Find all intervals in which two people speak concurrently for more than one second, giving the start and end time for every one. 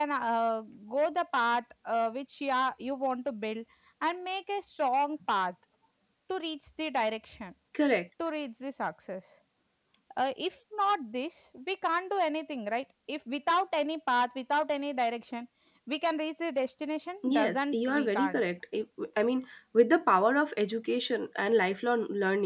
17.2-18.4

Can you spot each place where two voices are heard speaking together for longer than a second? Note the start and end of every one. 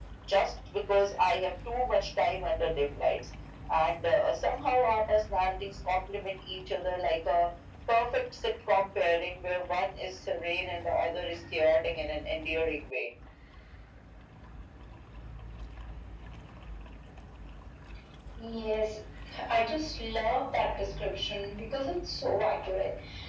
none

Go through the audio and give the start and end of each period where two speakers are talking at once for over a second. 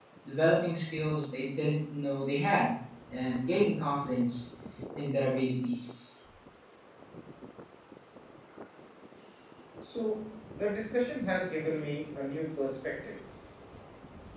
none

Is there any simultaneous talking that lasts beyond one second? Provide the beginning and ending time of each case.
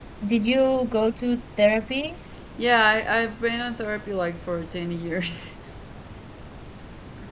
none

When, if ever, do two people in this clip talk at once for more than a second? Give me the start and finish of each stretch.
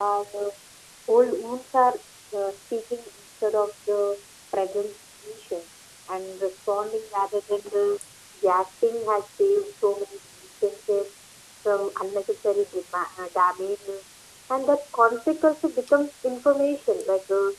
none

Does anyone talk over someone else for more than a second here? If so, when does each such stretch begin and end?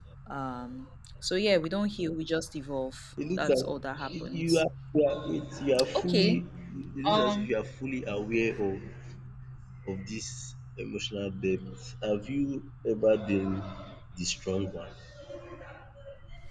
3.3-4.6

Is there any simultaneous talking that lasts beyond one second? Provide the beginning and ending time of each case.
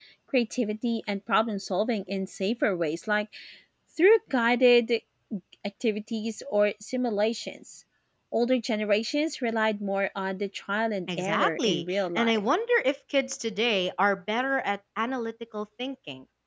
11.1-12.4

